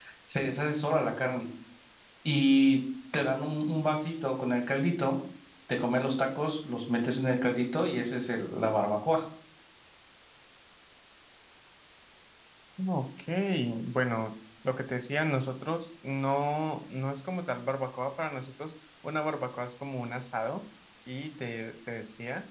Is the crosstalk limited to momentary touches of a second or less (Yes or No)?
Yes